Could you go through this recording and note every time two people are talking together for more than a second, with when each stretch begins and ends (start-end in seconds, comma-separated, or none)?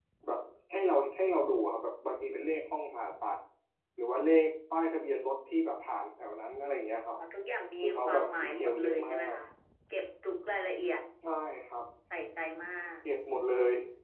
7.8-9.3